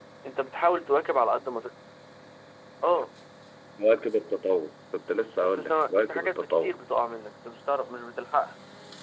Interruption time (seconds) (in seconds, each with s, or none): 5.4 s